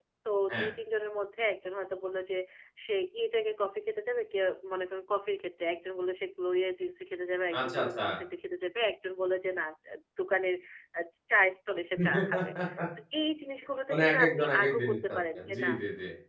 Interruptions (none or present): present